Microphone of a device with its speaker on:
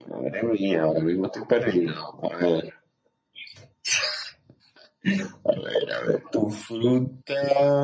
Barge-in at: none

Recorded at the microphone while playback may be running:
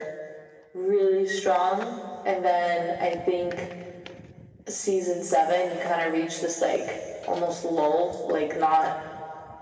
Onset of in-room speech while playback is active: none

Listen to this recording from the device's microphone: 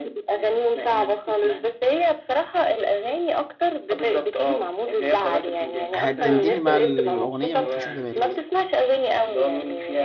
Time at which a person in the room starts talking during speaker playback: 6 s

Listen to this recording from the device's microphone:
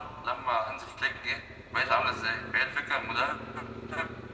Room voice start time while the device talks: none

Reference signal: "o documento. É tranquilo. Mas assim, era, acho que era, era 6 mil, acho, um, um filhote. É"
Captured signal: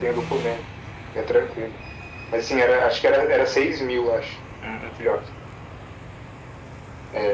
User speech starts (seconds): none

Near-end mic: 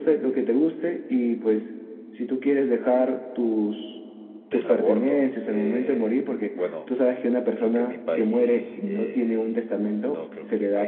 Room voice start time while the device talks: 5 s

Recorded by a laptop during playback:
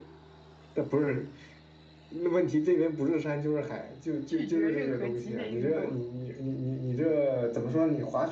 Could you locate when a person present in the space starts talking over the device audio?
4 s

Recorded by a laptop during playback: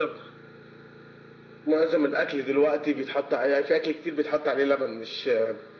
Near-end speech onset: none

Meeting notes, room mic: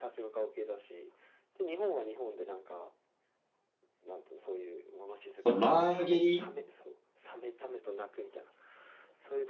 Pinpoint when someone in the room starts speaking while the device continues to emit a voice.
5 s

